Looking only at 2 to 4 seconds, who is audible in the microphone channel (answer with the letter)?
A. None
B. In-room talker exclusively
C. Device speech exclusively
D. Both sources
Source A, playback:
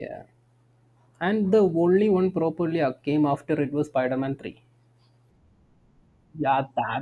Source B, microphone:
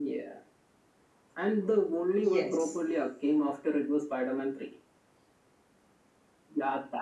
D